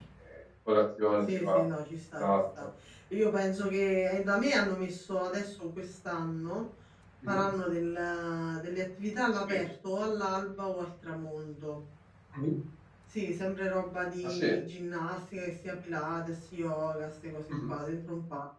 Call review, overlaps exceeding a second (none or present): none